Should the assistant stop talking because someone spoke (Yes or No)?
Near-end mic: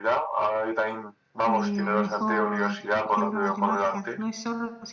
Yes